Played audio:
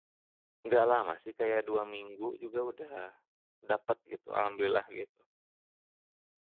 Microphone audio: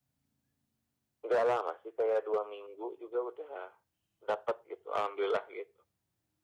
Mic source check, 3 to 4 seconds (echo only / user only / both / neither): echo only